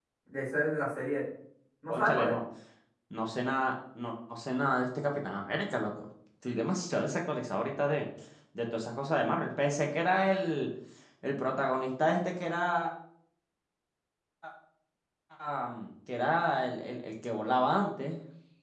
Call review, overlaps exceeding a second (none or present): none